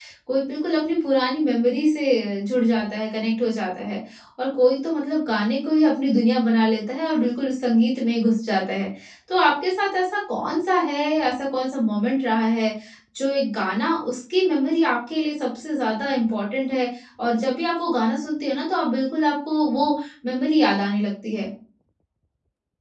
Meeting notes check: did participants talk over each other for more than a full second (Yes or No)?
No